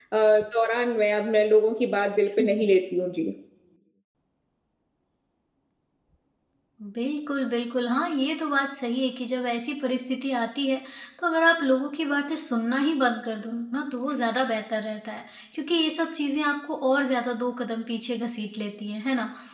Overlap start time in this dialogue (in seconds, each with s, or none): none